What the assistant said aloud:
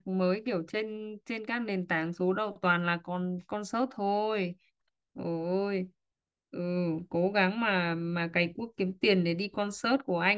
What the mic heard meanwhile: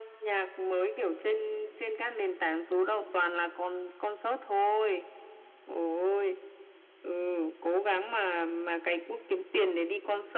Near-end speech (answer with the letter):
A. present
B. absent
B